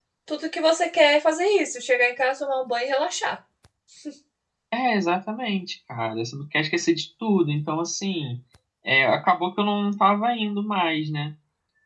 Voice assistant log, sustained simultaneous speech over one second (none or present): none